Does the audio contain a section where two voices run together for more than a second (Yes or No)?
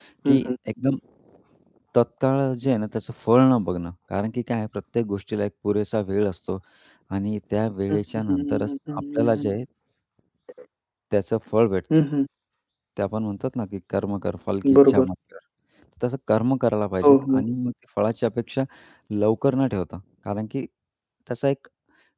Yes